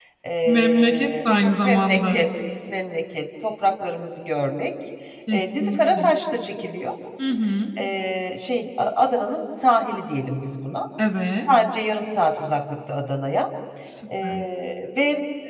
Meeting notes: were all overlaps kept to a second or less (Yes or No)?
No